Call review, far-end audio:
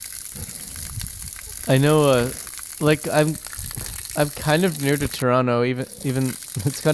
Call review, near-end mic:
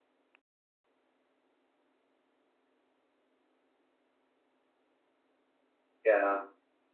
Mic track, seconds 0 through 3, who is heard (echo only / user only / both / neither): neither